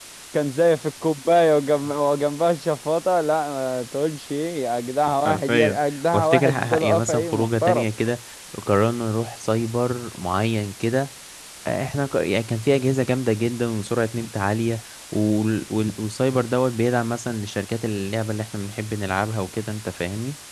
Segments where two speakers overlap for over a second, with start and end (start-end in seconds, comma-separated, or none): 6.1-7.8